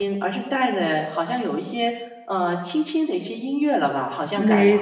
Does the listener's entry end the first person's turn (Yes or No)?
Yes